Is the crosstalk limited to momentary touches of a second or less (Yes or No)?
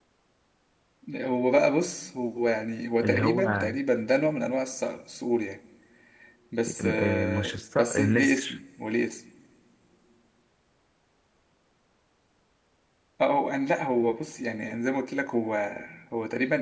No